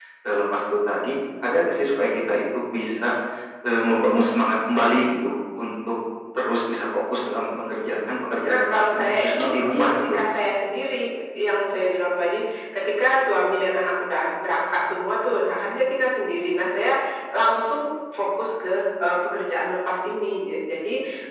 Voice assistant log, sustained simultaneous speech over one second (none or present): present